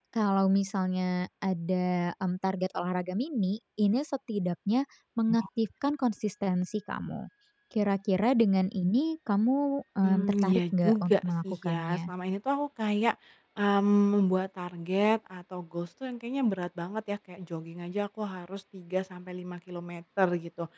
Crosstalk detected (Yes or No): Yes